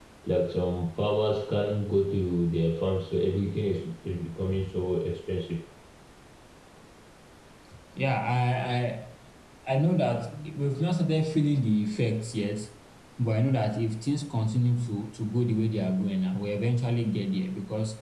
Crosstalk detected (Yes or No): No